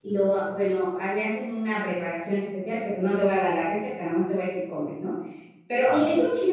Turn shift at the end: No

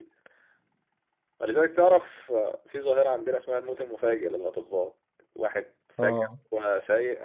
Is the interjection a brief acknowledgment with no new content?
Yes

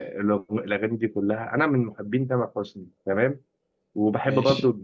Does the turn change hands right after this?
No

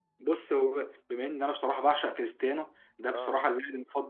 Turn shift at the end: No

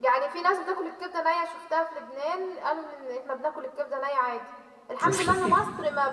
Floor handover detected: No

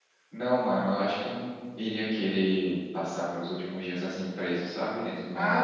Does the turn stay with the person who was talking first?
No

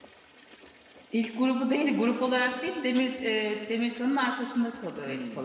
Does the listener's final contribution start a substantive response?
Yes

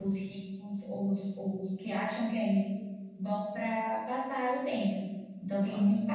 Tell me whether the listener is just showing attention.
Yes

